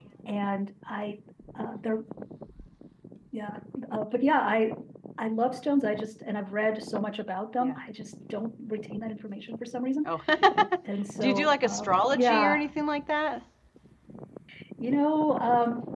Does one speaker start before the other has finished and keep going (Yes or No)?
Yes